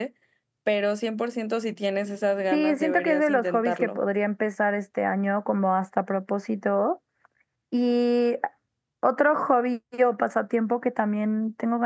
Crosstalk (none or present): present